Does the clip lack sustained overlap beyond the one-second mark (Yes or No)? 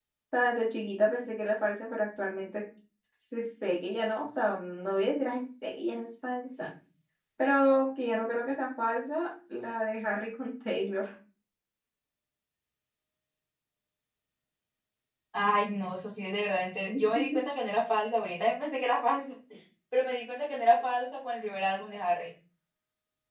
Yes